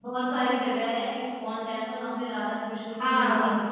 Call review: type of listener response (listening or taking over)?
taking over